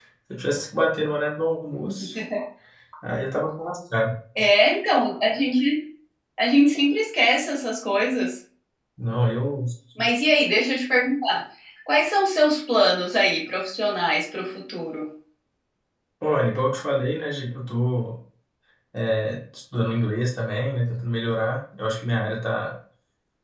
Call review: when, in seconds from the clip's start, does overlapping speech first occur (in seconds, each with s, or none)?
none